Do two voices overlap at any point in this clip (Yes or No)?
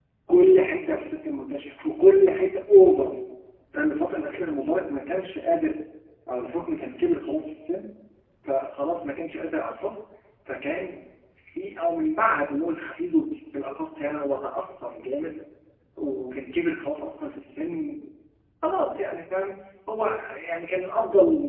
No